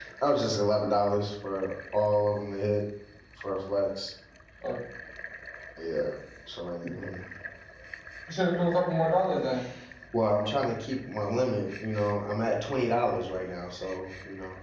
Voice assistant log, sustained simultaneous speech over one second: none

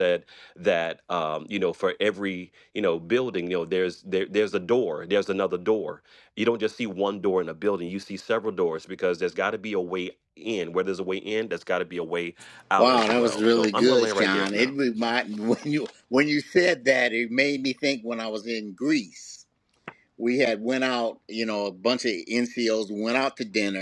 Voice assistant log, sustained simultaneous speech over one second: present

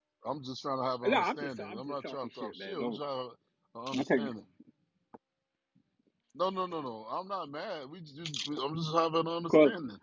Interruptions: present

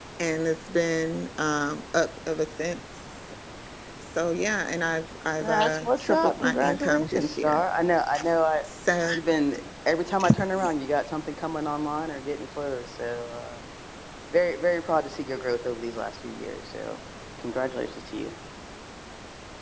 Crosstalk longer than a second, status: present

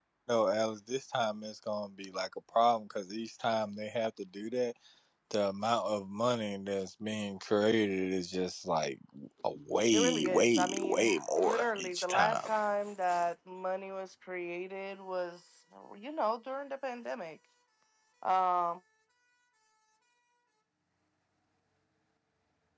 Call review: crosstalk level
present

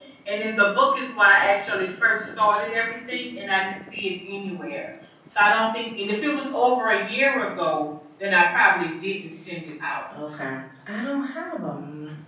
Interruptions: none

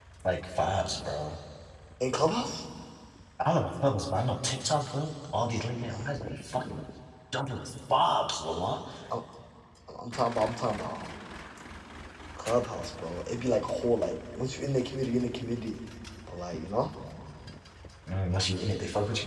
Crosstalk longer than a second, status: none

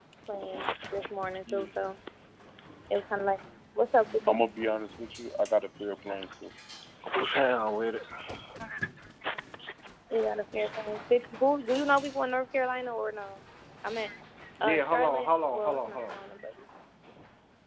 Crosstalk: present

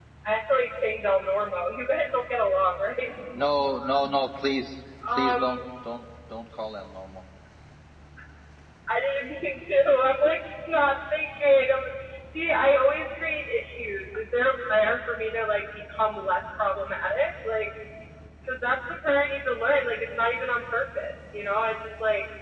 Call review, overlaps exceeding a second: none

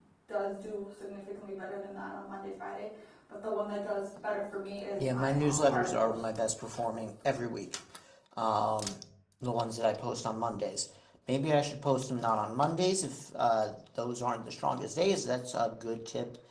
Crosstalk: present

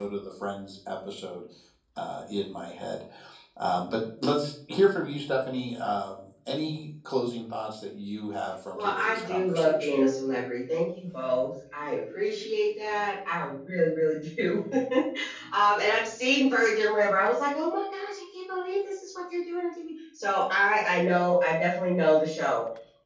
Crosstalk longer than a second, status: present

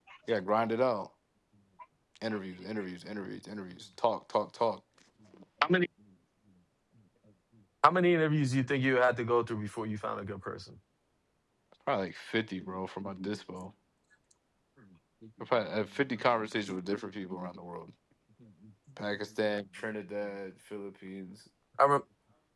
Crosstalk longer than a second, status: none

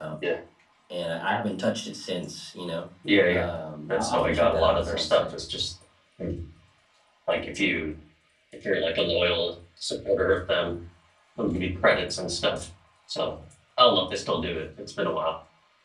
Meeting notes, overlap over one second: present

